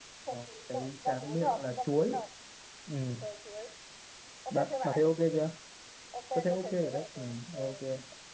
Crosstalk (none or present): present